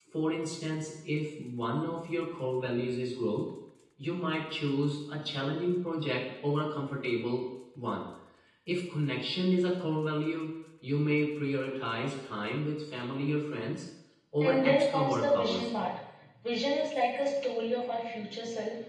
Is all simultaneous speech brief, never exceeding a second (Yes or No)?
No